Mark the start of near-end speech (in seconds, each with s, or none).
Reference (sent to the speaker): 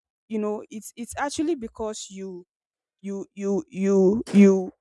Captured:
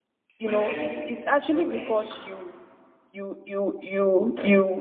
0.4 s